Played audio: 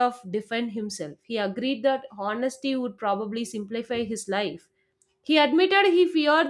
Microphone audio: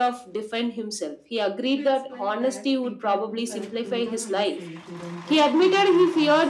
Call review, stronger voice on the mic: echo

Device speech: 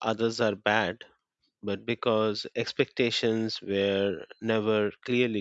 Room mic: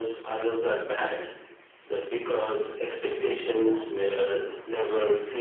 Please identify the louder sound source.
echo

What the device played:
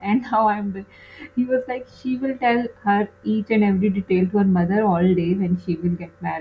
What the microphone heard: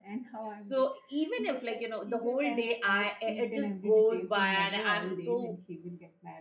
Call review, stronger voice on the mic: user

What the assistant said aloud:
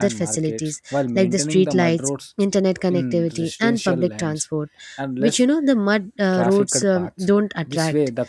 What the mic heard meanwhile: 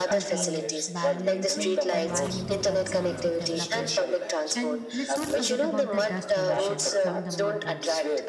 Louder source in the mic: echo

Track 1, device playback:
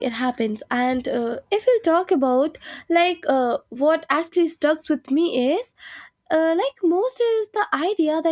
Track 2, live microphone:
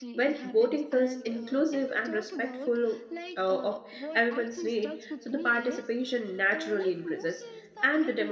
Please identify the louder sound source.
user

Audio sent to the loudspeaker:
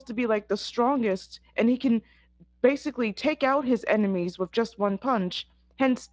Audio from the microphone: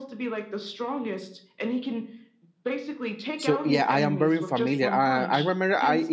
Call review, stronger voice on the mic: user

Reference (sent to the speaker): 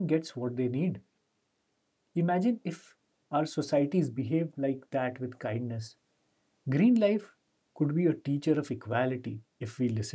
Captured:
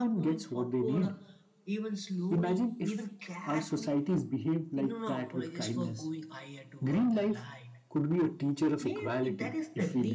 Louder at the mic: echo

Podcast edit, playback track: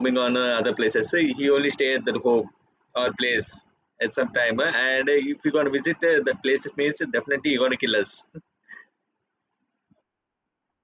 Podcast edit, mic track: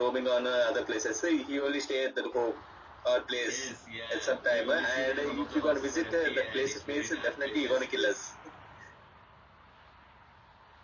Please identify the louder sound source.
echo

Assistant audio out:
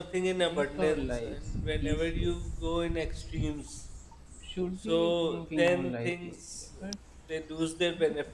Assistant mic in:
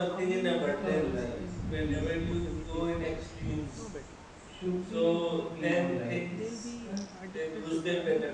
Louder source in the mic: echo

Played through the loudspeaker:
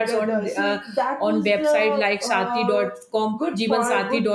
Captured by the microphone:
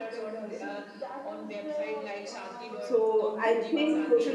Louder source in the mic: user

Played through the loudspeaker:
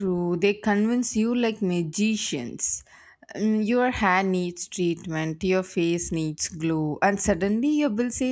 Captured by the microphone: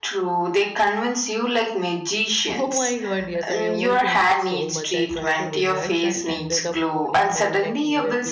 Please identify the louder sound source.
echo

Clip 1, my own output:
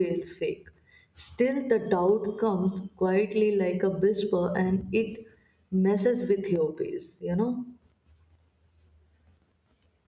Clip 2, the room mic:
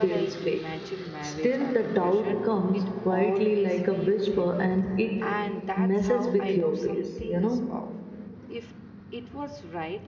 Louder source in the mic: echo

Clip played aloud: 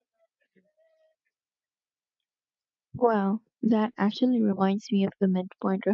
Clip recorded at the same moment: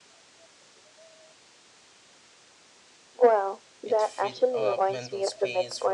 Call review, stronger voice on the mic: echo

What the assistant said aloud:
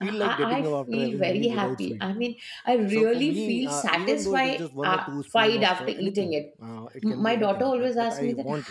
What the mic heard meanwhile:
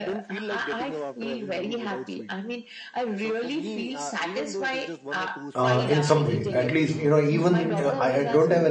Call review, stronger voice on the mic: user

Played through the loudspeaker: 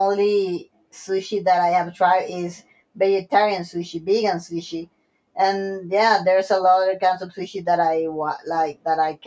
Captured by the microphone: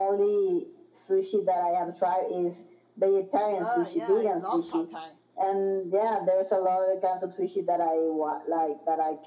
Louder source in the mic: echo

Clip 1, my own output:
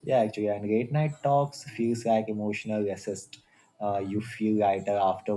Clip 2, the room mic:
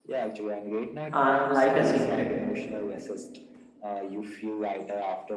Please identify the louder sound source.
user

